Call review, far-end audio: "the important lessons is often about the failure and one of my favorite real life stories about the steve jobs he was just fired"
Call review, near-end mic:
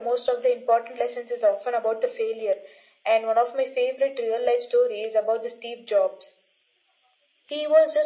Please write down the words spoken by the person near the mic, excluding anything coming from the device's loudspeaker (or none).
none